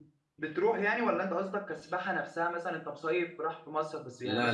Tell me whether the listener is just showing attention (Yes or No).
No